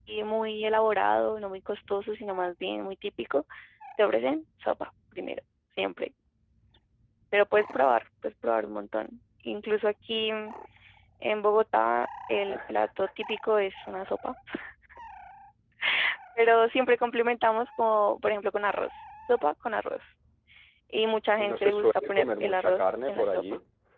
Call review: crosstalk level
present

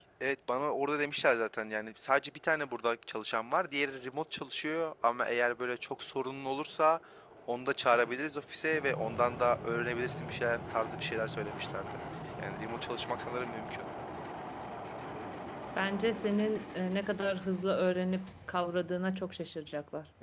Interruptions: none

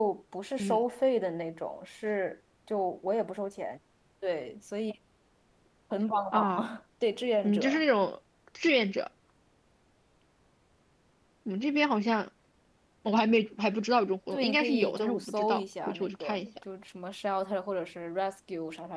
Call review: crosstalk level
present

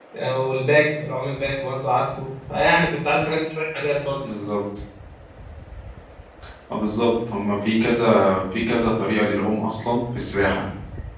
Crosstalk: none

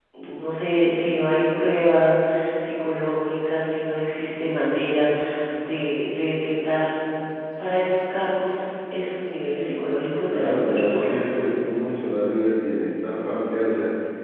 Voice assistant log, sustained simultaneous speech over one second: present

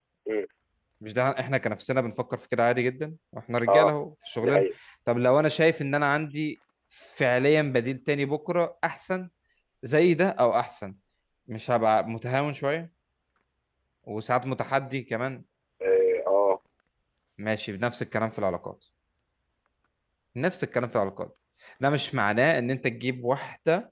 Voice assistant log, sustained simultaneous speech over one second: none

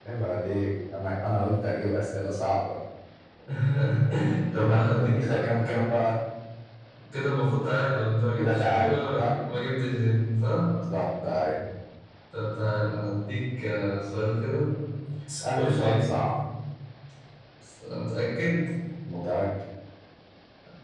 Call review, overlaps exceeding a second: present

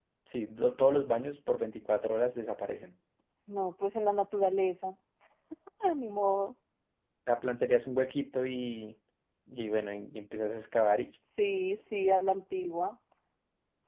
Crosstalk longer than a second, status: none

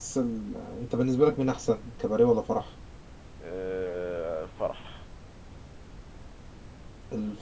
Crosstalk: none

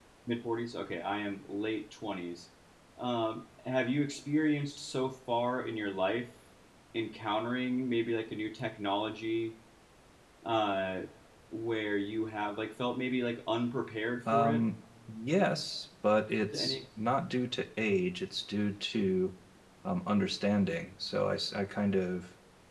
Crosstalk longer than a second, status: none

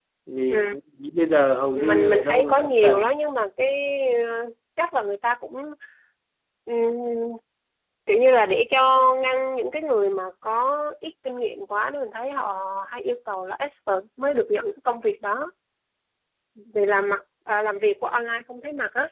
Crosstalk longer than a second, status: present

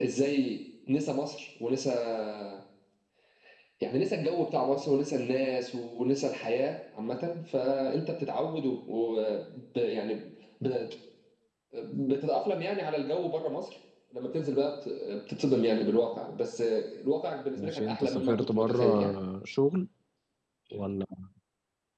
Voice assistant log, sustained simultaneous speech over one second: present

